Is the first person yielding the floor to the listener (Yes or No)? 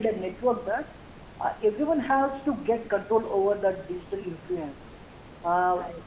No